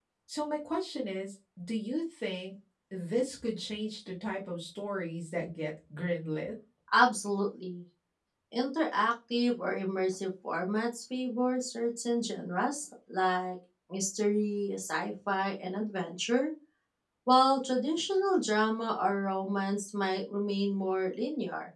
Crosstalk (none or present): none